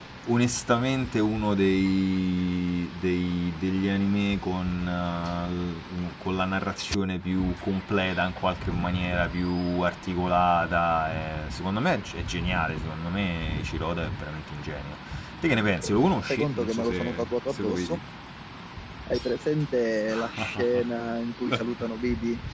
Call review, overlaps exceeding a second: present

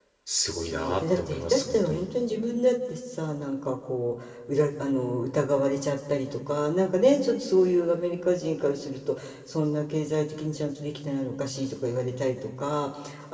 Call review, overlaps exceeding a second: present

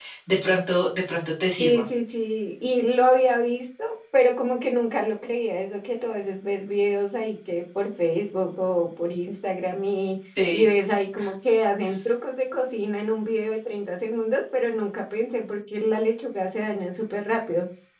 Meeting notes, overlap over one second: none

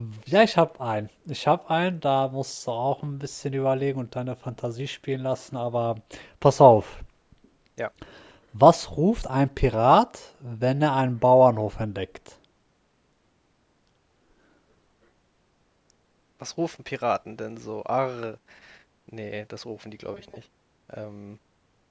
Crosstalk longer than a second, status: none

